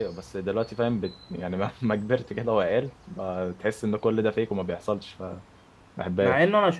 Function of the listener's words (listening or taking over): taking over